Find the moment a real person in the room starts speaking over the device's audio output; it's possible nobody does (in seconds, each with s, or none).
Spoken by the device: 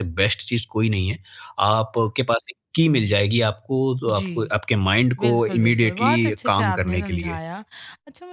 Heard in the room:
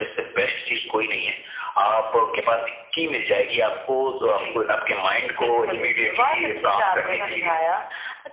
none